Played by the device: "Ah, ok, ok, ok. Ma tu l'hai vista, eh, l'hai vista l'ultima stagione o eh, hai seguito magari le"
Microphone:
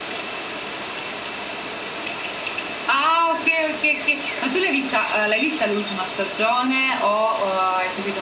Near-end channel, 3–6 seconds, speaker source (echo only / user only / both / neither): echo only